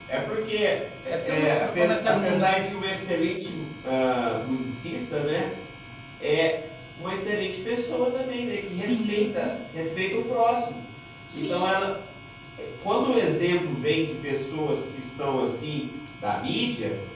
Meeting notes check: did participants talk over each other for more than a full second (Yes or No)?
Yes